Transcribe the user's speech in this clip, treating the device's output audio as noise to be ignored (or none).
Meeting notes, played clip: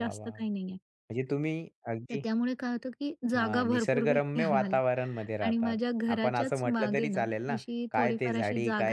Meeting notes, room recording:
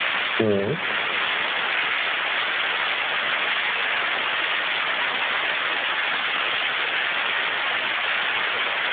हं,